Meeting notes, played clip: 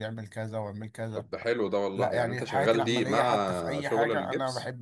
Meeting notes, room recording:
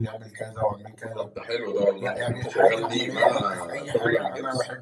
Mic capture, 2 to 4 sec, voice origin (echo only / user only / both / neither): echo only